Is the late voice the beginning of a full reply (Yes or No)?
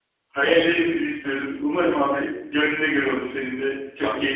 Yes